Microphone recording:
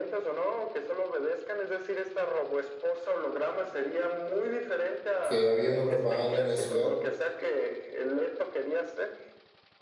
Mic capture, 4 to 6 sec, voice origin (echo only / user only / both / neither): both